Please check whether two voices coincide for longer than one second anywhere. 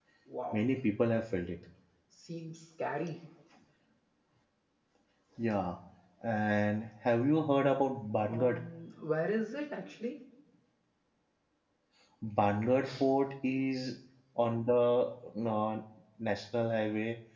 No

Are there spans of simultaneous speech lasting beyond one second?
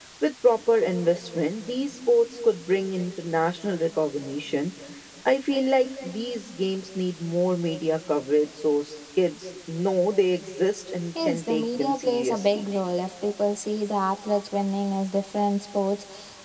Yes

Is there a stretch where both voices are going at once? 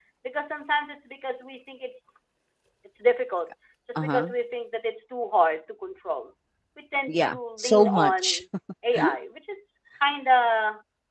Yes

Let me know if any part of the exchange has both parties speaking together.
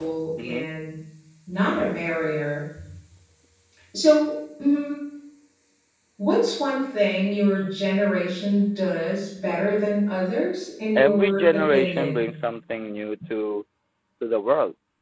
Yes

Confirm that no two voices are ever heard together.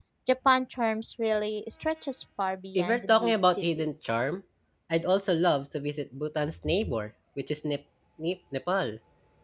No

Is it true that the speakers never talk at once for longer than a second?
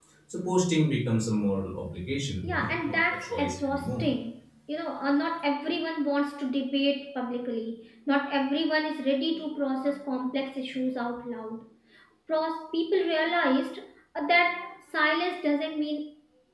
No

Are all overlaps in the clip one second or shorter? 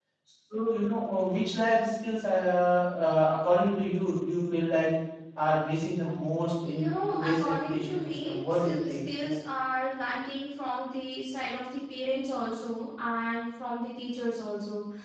No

